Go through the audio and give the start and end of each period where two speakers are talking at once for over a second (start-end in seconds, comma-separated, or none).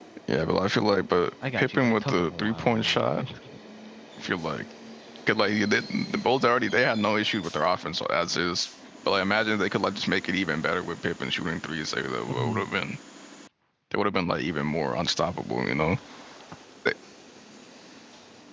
1.6-3.0